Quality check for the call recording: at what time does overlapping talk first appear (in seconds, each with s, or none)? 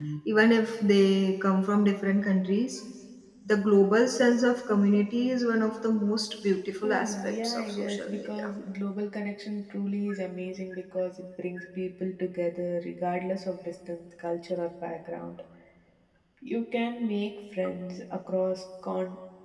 6.8 s